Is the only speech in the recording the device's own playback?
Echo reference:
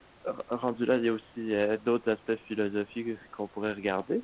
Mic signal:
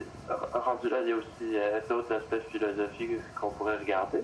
Yes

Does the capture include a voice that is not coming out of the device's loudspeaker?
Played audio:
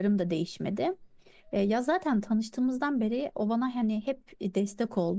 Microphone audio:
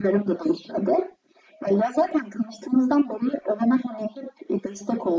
No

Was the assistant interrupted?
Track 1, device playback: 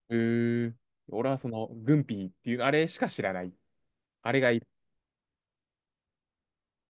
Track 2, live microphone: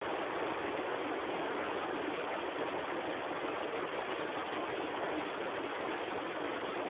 No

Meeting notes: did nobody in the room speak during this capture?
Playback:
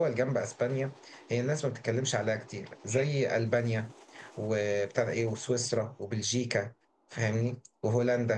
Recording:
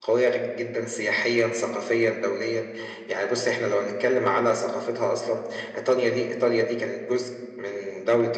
No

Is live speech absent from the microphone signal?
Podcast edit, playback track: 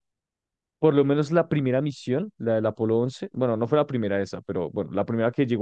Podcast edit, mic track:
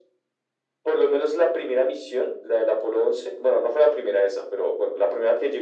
Yes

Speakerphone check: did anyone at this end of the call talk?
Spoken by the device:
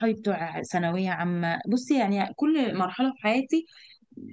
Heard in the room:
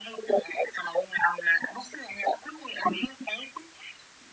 No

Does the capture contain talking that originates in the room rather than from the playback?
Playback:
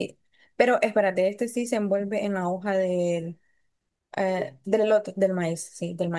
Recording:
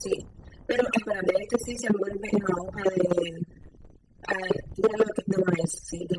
No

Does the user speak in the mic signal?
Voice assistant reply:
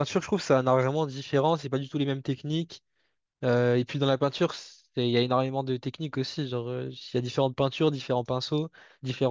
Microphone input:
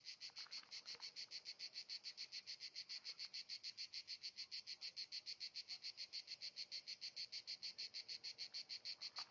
No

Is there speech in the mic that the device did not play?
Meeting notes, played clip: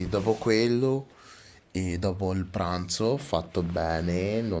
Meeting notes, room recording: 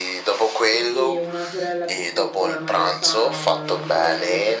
Yes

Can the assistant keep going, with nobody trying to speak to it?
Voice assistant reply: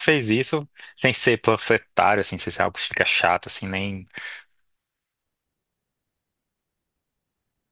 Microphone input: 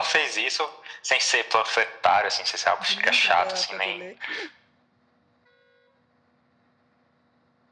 No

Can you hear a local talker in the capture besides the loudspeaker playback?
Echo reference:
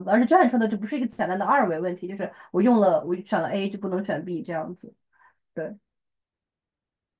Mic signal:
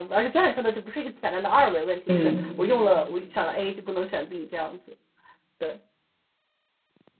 Yes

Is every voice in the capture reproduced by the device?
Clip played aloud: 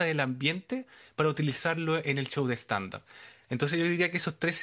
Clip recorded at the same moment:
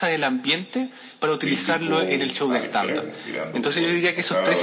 No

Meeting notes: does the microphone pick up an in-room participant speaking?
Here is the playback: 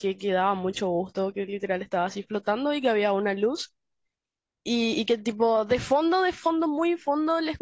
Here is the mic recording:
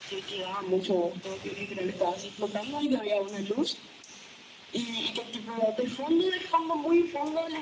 No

